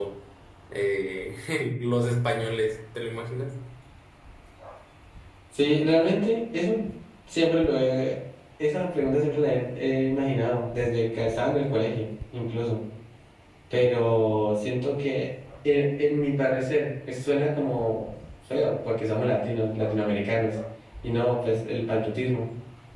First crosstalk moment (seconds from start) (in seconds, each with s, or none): none